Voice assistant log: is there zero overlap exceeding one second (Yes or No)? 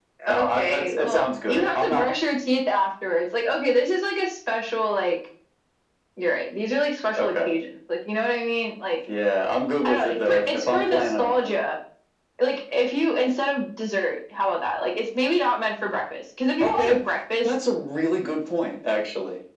No